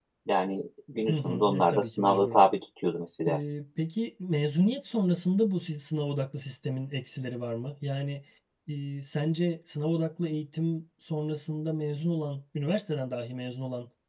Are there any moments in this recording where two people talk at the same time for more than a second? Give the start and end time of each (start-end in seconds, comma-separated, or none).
1.1-2.4